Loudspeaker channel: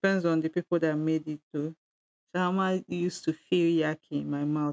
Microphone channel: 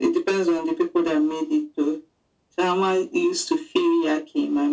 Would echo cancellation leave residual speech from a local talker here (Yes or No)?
No